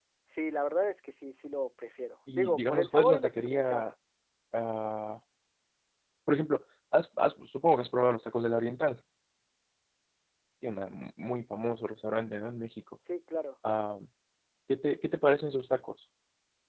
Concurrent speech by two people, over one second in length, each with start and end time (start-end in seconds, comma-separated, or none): 2.3-3.9